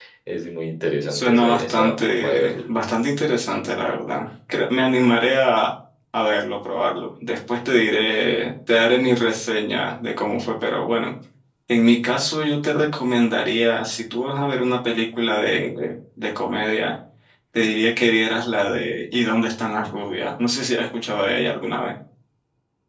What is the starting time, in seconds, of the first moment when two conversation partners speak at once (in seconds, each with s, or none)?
1.1 s